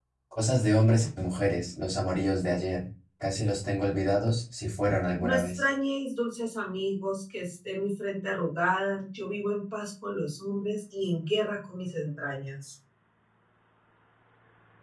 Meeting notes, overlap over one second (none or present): none